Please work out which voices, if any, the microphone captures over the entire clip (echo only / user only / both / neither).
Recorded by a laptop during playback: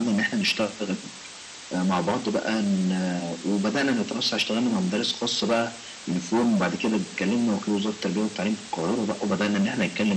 echo only